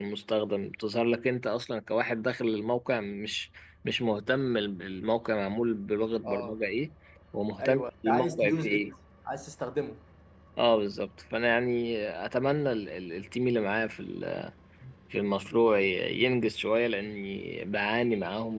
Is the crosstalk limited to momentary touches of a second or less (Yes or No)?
No